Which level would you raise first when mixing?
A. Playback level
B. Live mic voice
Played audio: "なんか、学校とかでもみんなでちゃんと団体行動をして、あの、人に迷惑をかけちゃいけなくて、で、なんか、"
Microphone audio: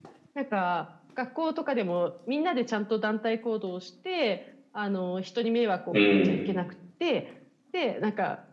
A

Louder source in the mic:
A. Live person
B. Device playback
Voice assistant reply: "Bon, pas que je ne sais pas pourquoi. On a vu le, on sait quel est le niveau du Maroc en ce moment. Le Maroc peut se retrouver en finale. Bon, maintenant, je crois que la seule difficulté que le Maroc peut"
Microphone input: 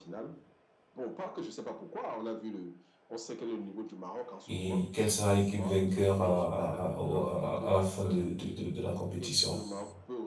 A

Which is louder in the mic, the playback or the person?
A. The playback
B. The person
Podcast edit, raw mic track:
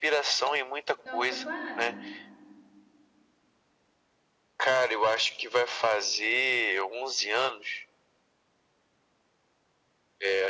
A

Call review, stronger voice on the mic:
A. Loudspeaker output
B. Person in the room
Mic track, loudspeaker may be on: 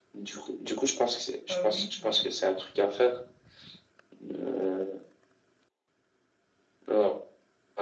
A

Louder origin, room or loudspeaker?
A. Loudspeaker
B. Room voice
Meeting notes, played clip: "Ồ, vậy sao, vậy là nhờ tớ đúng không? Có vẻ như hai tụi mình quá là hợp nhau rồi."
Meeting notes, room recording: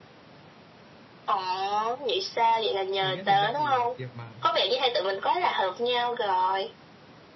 A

